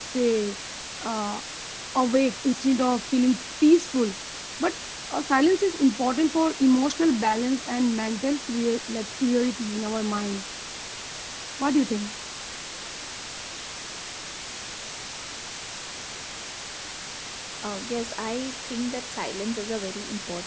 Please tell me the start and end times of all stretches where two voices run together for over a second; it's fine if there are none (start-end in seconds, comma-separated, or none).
none